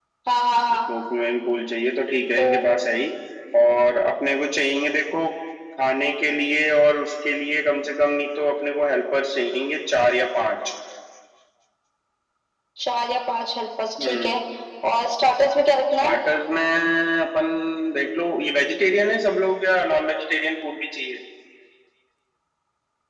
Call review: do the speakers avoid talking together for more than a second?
Yes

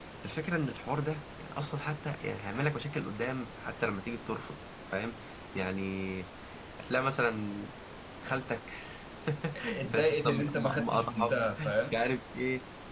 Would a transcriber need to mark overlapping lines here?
Yes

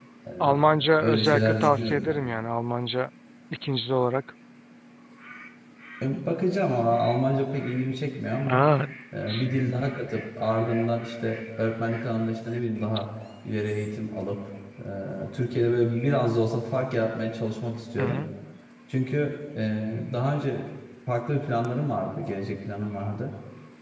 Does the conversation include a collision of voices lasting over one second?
Yes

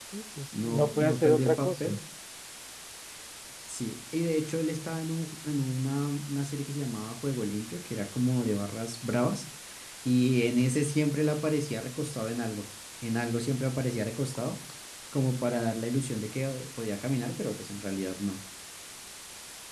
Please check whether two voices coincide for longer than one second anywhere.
Yes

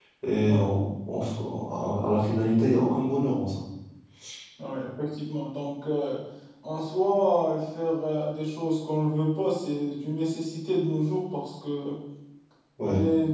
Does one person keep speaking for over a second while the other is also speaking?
No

